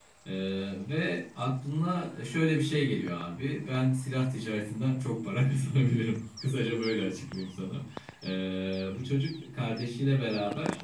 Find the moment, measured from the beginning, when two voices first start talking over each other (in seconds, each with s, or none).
none